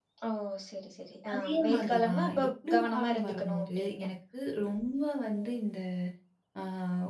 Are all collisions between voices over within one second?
No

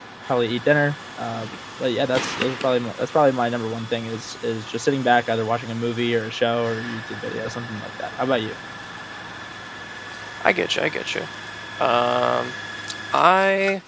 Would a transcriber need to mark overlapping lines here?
No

